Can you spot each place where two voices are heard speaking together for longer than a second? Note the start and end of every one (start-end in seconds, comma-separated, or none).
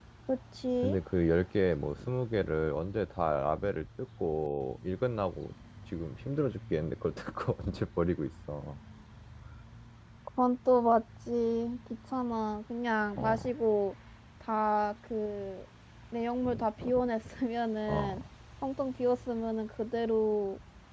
none